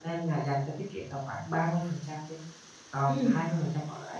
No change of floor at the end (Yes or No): Yes